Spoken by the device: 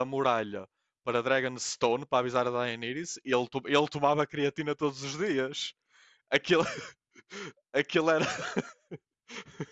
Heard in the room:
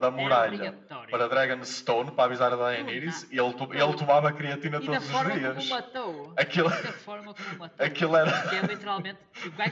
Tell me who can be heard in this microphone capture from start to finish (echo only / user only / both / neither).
both